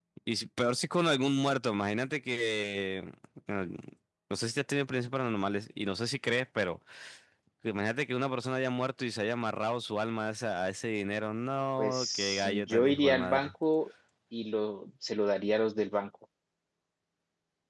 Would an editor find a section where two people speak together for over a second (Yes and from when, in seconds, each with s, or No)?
Yes, from 11.8 s